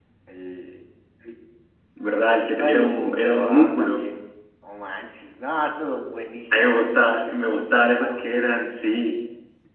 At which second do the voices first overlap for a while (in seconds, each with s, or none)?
2.6 s